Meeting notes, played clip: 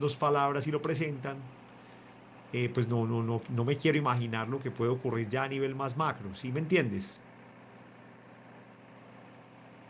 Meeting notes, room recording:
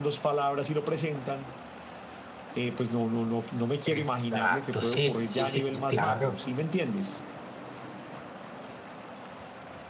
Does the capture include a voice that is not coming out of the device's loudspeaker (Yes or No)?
Yes